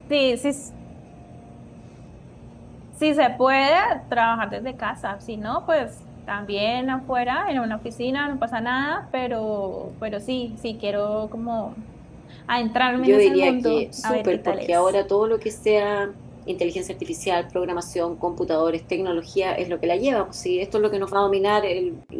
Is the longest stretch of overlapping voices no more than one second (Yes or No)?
No